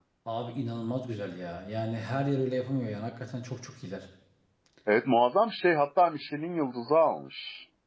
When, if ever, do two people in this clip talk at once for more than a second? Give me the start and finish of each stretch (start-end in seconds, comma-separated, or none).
none